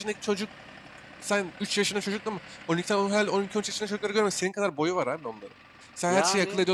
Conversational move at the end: listening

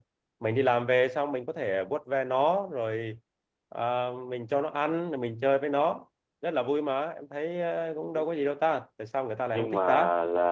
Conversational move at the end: taking over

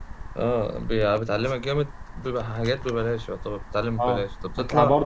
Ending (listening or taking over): taking over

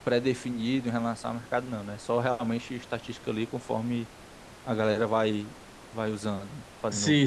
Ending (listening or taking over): taking over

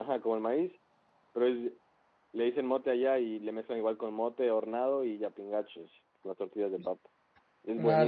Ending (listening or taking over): taking over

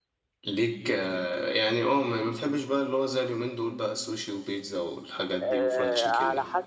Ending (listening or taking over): taking over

